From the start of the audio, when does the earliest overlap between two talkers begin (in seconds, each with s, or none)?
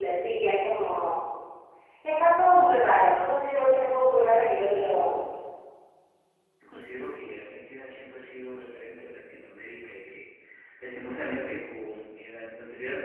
none